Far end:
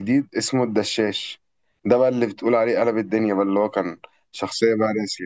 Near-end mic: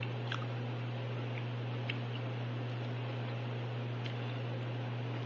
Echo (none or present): none